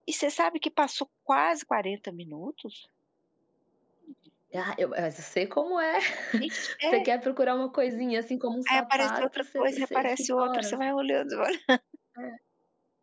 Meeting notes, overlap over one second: present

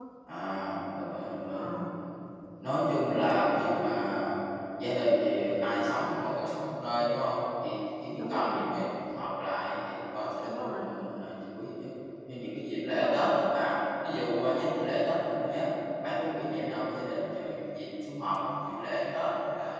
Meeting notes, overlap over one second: none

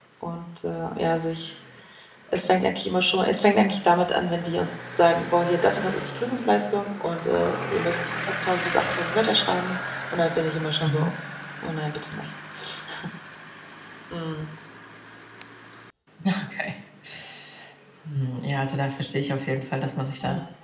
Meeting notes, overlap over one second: none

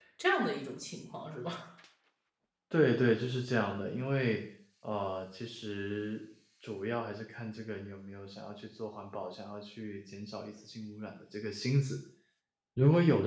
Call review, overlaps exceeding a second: none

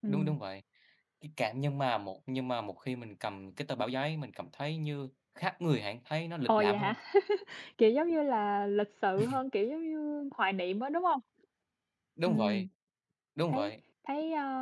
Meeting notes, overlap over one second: none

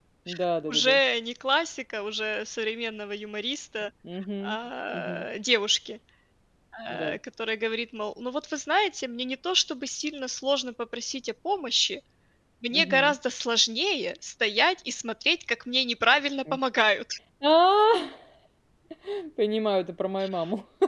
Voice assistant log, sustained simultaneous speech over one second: none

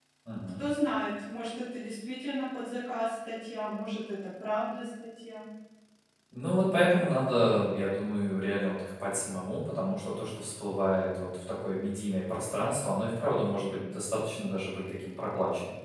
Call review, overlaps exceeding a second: none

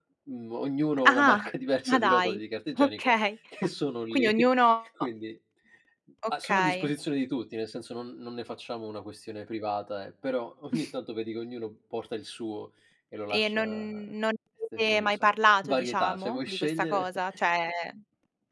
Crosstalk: present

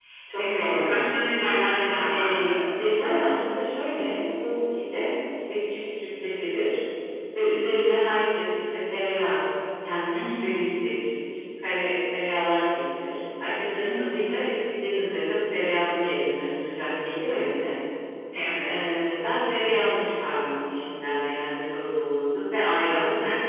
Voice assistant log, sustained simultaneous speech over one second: none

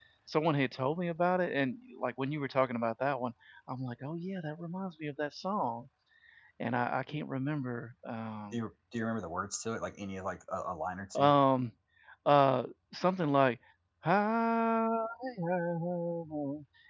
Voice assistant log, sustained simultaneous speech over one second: none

